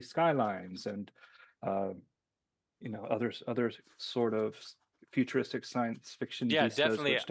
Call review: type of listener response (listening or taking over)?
taking over